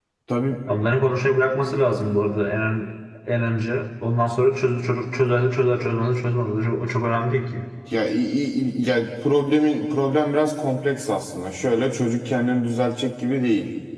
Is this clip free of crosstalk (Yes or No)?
Yes